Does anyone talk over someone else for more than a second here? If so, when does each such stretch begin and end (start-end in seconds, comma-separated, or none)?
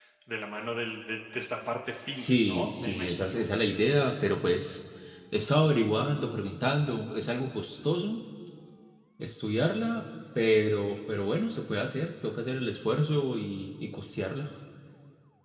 2.1-3.4